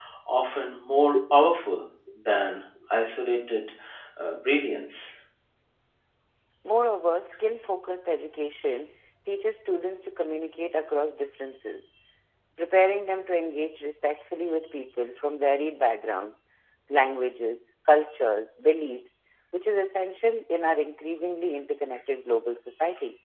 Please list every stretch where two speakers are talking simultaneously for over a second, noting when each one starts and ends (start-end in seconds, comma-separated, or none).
none